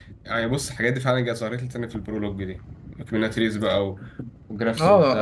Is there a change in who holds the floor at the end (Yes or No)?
Yes